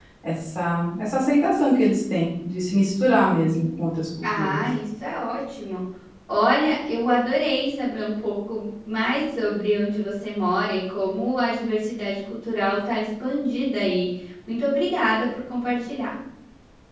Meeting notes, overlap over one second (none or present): none